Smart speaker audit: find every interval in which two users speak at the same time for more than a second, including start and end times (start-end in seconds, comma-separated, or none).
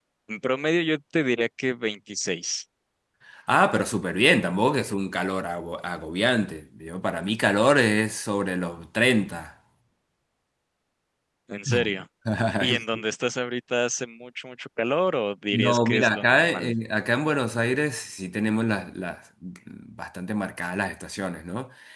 15.5-16.7